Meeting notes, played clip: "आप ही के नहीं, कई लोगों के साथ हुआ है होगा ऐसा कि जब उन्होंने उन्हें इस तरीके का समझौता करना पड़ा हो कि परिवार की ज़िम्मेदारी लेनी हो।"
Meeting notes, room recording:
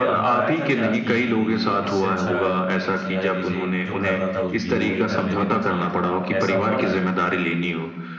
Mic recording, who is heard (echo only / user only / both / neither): both